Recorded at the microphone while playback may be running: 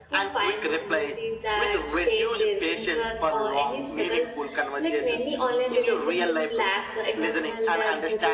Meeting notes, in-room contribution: present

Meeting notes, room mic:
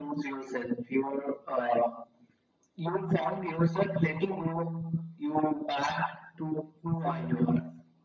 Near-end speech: none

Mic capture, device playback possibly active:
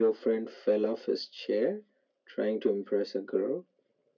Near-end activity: none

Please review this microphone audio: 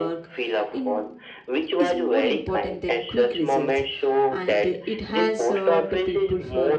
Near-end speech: present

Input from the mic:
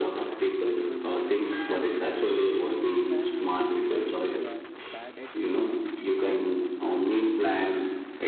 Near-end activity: present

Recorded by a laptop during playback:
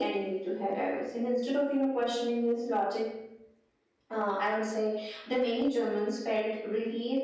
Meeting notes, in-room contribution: none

